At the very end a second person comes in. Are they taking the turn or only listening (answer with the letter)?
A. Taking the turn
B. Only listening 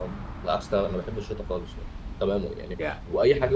B